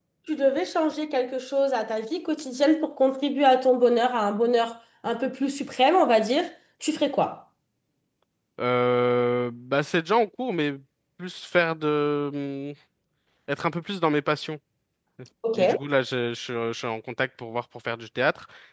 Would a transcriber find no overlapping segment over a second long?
Yes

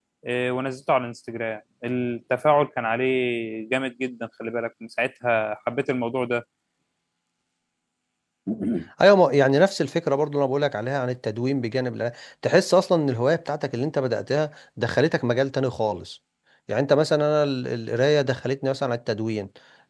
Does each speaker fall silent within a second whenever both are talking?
Yes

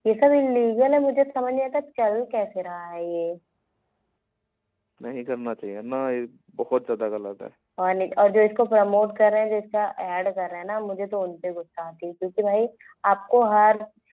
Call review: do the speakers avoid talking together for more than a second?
Yes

